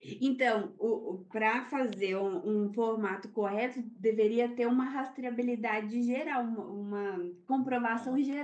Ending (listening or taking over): listening